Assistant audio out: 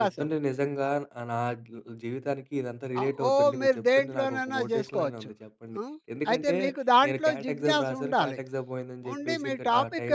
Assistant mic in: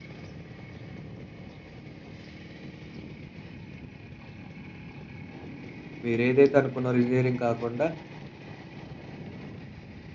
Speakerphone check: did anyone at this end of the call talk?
Yes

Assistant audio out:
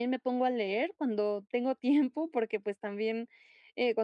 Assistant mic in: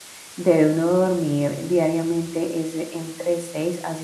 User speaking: Yes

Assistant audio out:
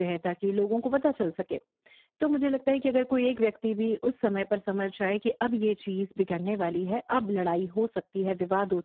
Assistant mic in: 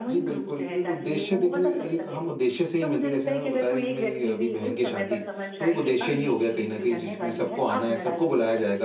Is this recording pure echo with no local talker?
No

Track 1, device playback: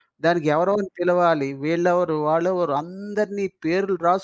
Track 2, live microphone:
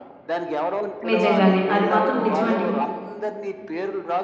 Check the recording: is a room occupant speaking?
Yes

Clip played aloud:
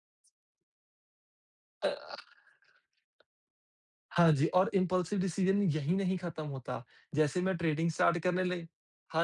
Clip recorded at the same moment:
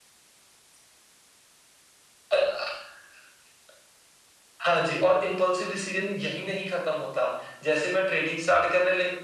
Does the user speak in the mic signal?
No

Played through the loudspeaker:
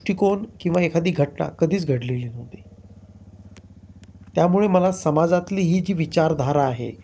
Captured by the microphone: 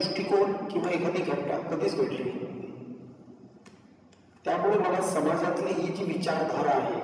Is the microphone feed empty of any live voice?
Yes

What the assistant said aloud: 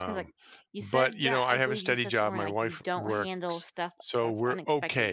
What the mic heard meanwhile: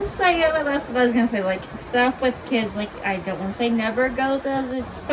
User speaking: Yes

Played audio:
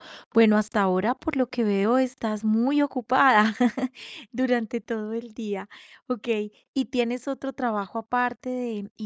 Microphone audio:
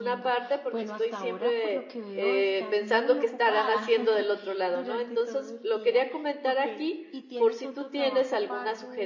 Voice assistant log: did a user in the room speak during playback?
Yes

